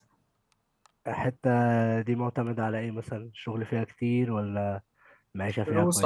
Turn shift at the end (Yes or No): Yes